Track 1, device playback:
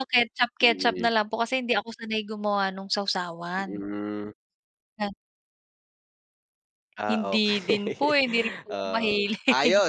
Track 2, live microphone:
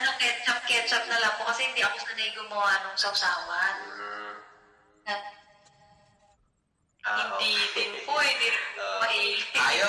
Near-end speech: none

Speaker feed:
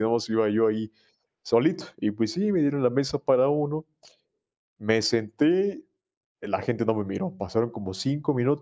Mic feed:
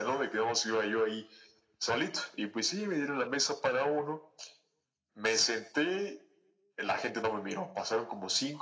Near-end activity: none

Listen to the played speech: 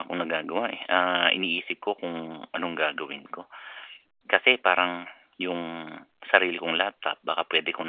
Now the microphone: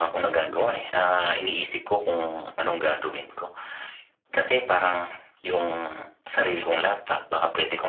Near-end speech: none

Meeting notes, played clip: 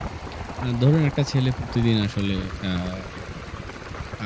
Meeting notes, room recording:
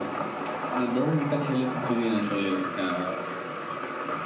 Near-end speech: none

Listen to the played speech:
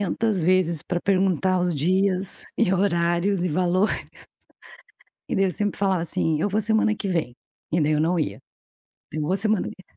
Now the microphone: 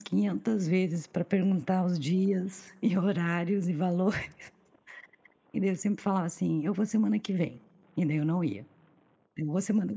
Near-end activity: none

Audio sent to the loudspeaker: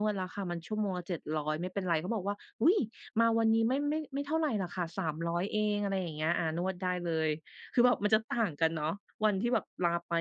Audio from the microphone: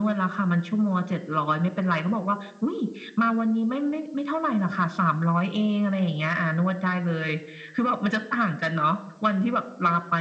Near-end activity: none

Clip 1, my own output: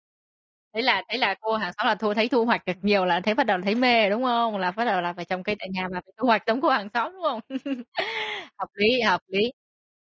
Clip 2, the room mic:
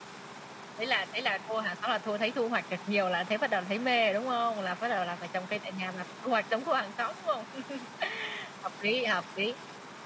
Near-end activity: none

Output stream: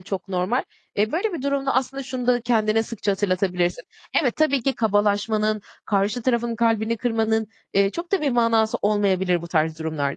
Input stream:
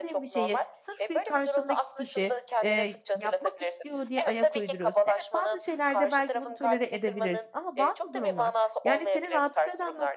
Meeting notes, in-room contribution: present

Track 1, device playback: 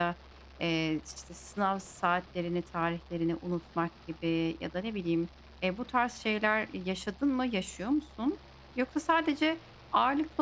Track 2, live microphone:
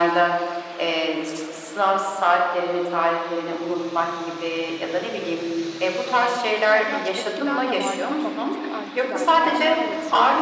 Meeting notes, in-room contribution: present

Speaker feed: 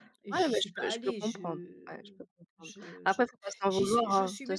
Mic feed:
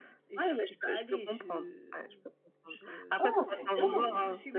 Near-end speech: present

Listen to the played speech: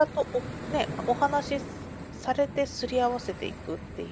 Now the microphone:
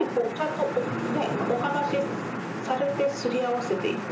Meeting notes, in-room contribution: none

